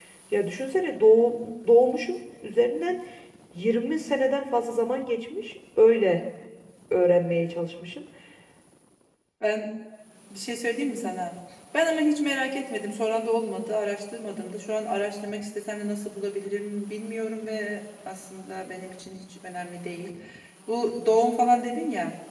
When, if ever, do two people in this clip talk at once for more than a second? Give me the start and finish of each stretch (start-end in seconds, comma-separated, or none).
none